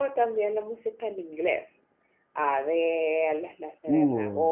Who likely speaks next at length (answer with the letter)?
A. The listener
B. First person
B